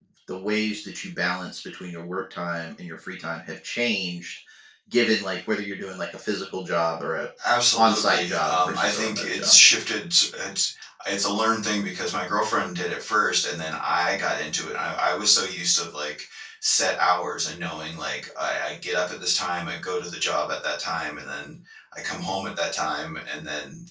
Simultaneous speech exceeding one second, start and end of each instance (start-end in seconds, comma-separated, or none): 7.8-9.6